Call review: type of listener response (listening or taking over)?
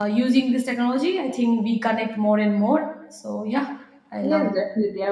taking over